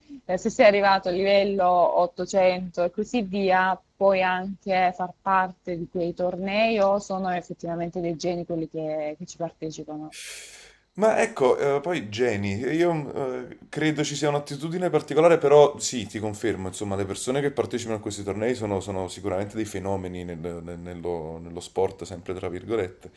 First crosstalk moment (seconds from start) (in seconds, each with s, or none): none